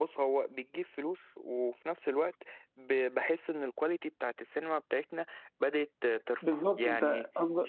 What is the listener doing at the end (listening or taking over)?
taking over